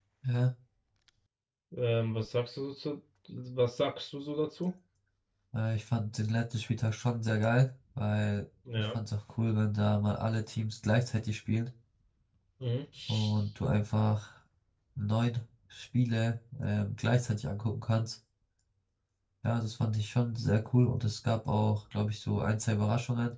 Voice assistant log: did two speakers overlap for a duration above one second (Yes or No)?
No